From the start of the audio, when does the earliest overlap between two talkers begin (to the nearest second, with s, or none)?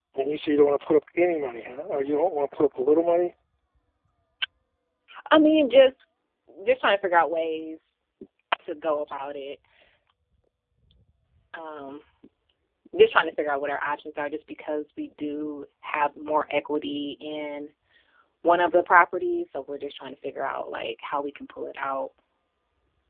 none